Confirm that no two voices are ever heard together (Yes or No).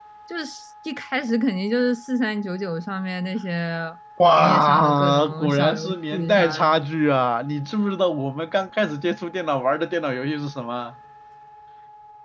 No